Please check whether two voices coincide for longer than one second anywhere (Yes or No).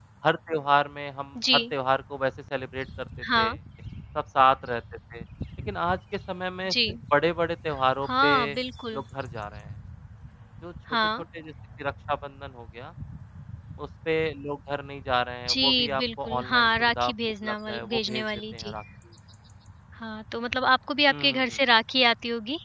Yes